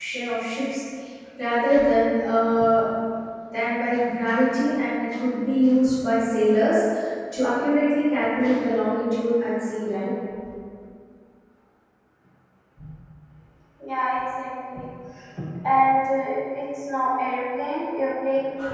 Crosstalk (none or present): none